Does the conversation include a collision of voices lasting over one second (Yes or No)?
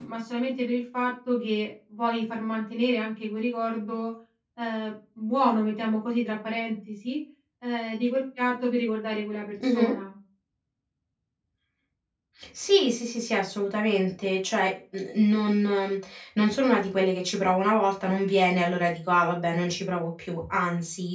No